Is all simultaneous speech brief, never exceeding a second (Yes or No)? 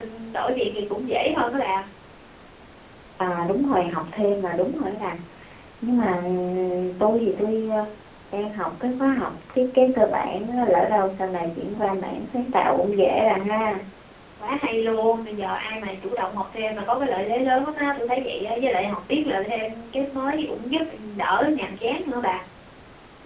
Yes